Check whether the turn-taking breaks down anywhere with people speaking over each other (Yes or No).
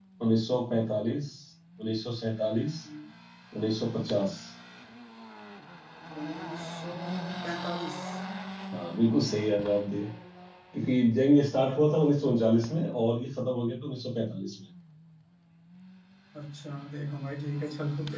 No